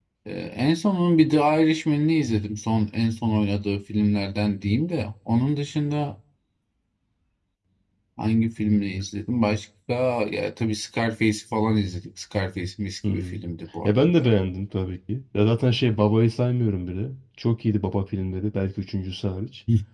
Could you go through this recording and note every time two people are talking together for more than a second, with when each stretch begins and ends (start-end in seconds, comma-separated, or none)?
none